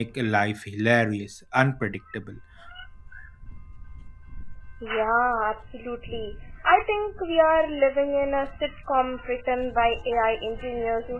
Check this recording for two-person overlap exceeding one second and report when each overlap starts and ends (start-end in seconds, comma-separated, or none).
none